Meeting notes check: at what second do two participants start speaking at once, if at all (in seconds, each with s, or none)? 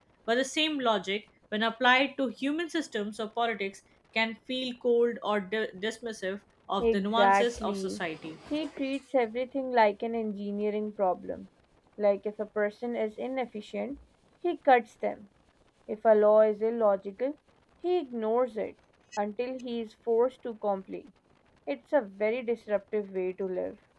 6.8 s